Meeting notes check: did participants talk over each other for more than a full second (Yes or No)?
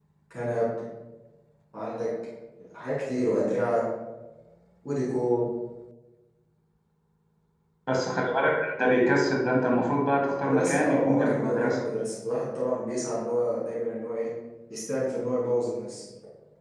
Yes